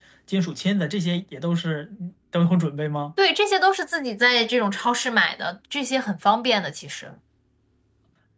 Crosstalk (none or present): none